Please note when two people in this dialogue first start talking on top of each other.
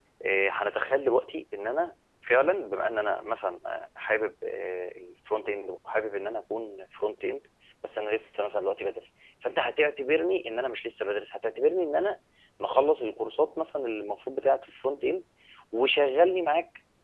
none

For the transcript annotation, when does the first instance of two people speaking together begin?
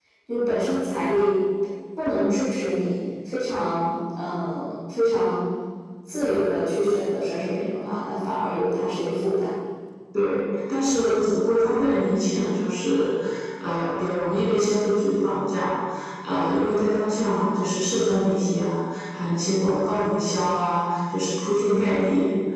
none

